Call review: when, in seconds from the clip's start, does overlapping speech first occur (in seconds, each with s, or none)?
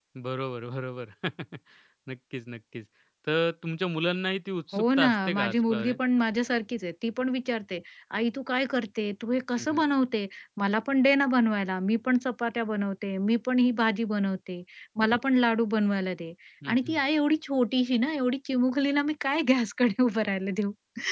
4.7 s